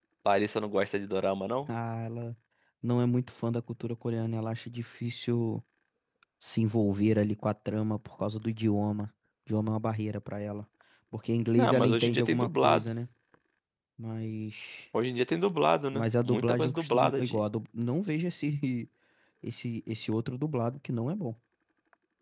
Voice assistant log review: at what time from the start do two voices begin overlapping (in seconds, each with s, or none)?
11.6 s